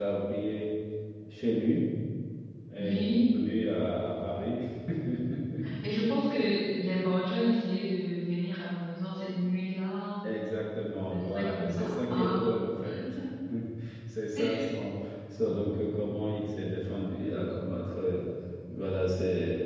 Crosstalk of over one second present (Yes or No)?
Yes